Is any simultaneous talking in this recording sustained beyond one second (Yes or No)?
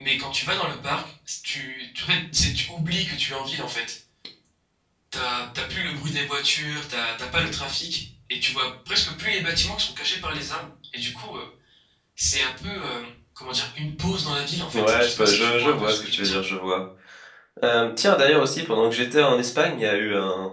Yes